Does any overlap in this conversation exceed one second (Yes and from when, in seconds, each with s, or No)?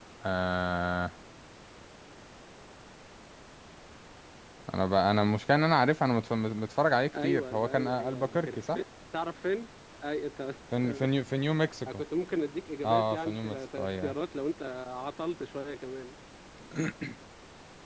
Yes, from 7.2 s